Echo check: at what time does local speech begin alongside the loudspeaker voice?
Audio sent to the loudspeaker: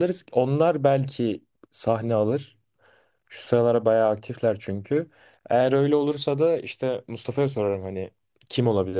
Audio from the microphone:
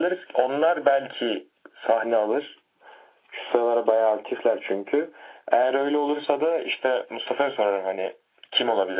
none

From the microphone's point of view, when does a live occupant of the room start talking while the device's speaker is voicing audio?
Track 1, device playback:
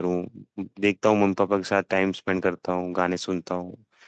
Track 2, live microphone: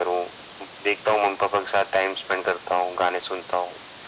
none

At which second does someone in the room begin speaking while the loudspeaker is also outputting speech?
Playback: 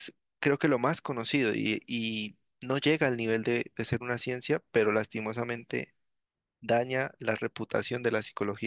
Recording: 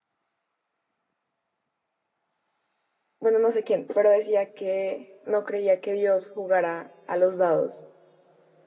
3 s

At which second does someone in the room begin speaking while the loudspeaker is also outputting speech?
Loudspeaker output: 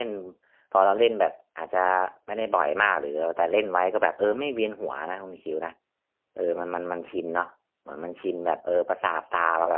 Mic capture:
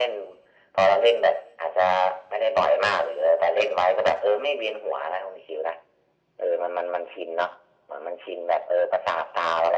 none

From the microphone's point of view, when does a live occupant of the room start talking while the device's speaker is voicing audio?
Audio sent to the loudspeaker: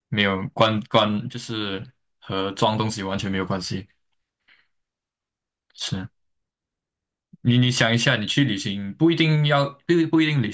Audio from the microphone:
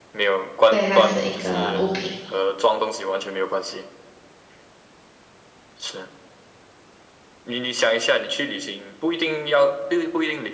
1 s

